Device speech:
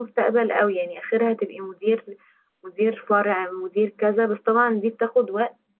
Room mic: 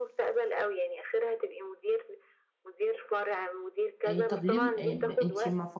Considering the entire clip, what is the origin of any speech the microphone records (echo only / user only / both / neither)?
both